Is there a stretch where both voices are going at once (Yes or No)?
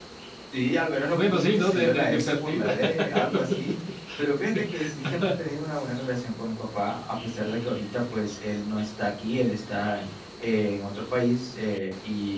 Yes